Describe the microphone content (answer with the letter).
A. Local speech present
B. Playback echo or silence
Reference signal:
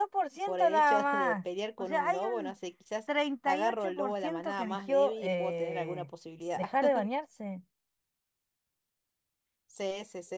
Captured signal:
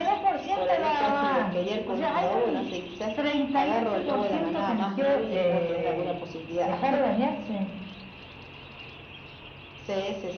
B